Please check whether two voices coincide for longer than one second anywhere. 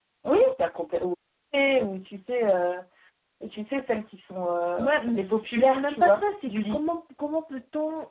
Yes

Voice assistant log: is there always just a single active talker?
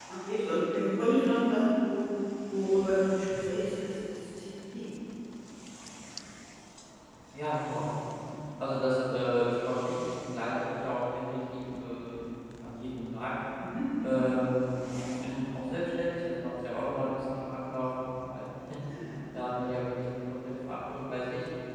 Yes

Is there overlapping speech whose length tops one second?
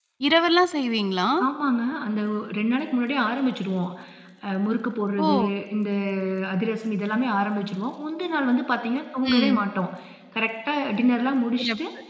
No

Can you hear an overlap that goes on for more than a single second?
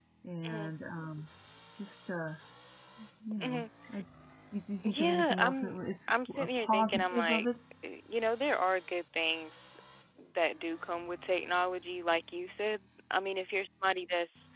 Yes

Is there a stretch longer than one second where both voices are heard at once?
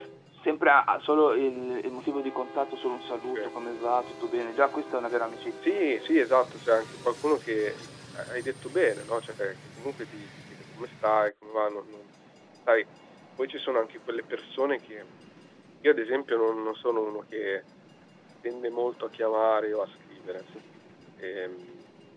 No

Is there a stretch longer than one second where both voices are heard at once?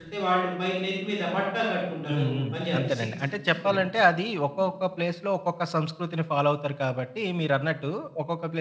Yes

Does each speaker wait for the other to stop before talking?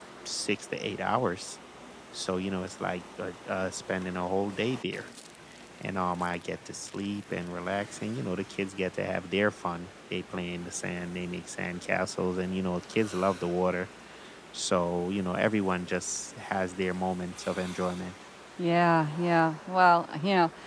Yes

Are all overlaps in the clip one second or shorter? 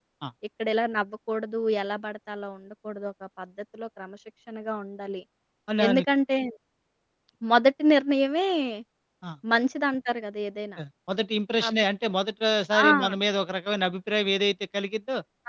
Yes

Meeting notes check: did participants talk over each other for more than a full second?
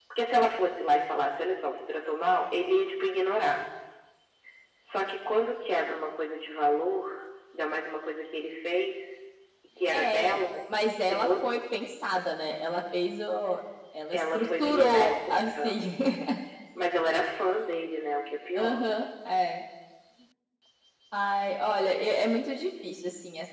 Yes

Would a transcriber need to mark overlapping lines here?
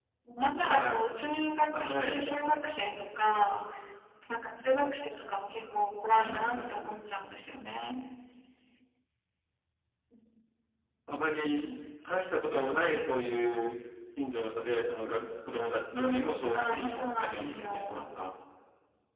Yes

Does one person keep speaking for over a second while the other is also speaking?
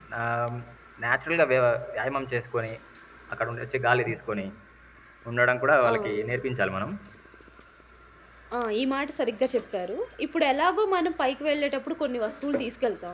No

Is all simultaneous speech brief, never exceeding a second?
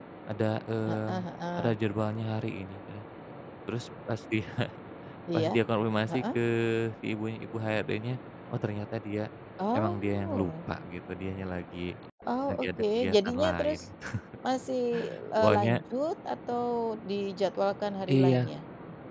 No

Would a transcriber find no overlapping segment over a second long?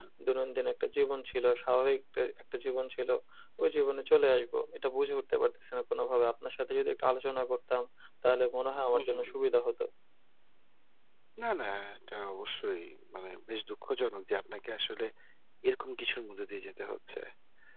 Yes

